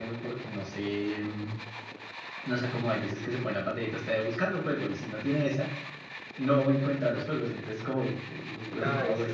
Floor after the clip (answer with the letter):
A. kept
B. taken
B